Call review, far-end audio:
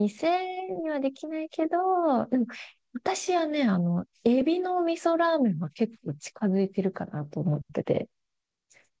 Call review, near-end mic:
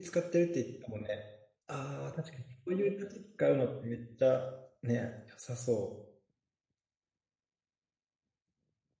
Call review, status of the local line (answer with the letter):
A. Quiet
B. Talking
B